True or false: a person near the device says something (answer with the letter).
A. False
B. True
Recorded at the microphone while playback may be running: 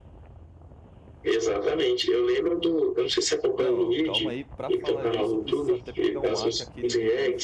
B